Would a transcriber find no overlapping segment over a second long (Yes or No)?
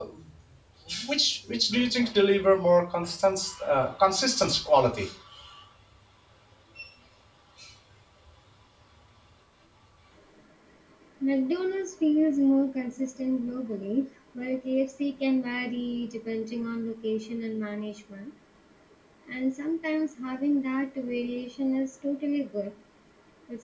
Yes